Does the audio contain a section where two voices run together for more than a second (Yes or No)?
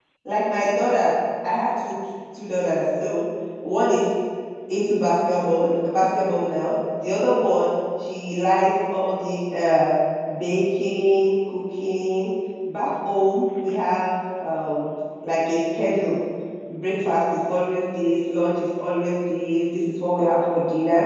No